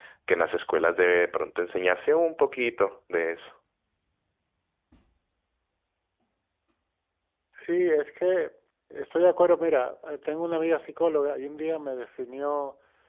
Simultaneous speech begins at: none

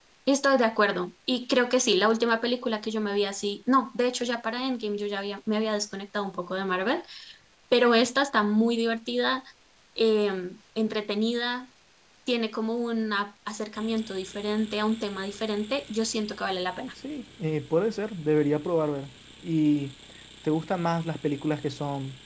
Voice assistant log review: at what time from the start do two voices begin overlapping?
none

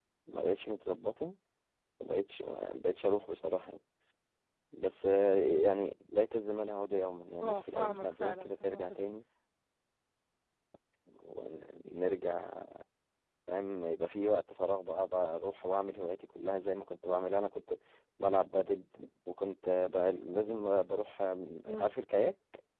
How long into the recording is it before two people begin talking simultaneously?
7.4 s

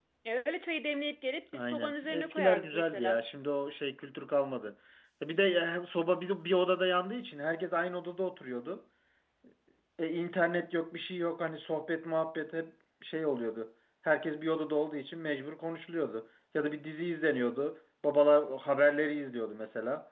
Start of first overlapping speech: 1.5 s

